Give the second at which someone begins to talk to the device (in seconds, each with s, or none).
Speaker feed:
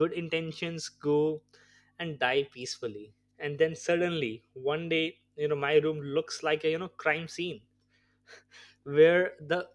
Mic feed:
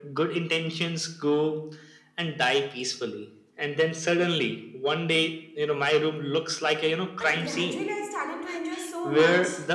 7.2 s